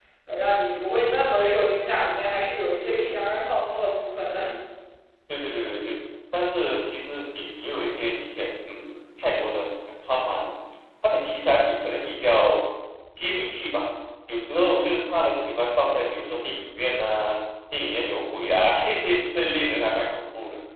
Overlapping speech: No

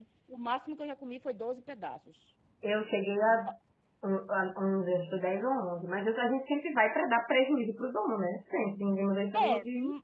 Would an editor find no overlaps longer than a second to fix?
Yes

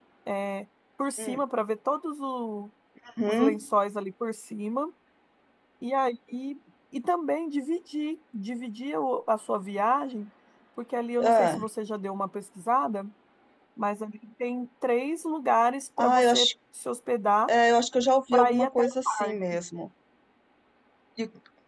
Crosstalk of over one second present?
Yes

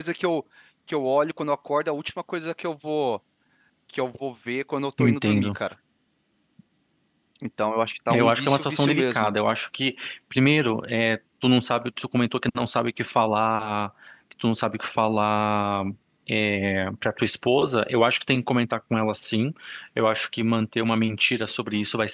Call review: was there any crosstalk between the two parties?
Yes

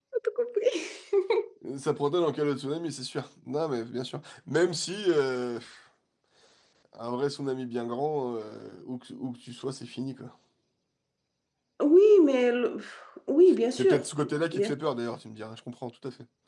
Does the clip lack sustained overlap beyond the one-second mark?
Yes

